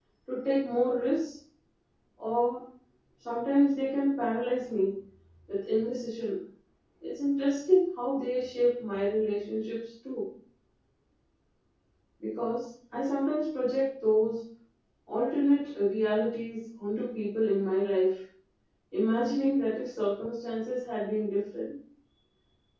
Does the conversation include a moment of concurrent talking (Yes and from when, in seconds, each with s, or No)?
No